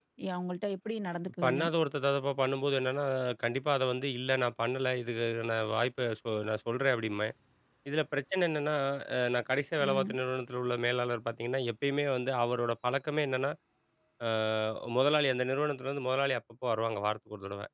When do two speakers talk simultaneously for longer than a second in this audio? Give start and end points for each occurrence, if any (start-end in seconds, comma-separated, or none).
none